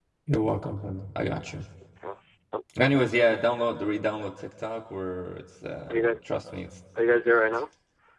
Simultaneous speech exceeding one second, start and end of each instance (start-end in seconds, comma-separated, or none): none